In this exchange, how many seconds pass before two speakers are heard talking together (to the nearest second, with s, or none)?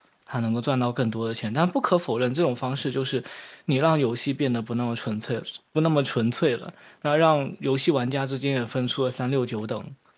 none